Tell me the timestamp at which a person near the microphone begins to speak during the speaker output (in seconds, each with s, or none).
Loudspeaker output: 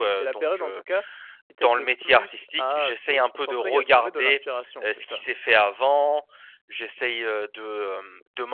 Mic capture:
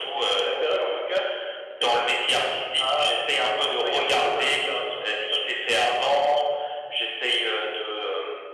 none